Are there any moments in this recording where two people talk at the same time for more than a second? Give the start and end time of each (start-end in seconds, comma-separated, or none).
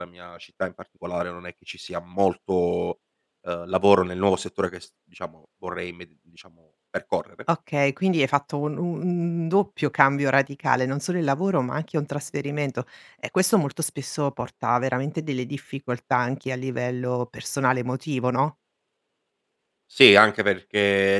none